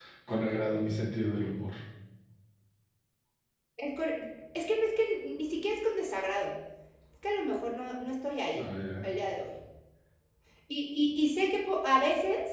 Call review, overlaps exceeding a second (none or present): none